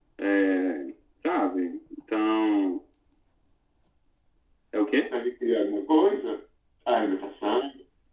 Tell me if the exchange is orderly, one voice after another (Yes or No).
Yes